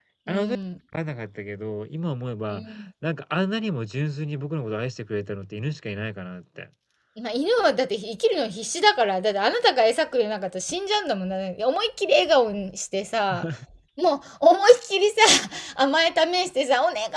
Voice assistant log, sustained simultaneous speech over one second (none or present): none